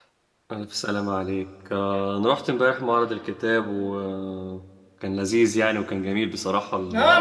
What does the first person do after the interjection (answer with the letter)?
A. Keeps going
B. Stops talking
B